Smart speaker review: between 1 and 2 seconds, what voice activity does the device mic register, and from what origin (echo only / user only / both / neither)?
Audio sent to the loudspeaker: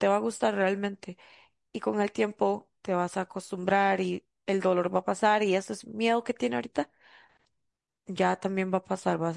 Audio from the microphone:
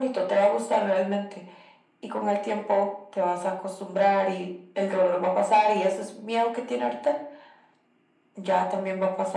echo only